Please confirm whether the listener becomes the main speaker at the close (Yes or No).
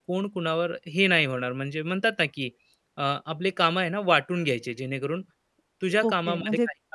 Yes